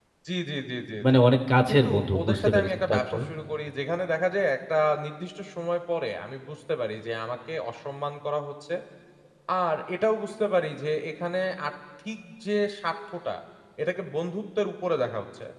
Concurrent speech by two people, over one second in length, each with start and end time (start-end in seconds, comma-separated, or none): 1.7-3.2